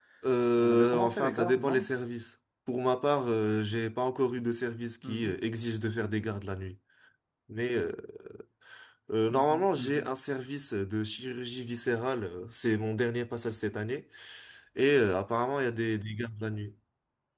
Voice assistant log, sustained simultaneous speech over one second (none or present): present